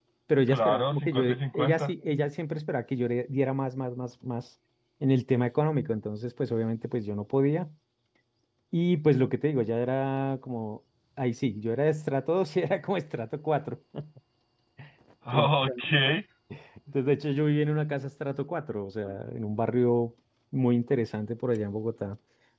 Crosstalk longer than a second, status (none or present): present